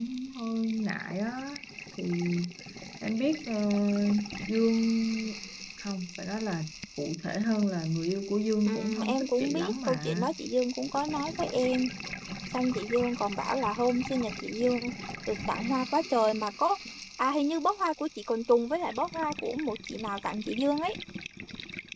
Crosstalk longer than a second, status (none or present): present